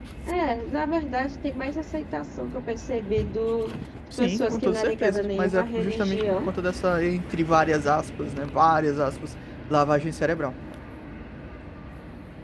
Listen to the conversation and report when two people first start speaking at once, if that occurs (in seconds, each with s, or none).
4.1 s